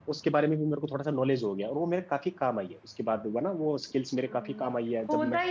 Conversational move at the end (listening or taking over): taking over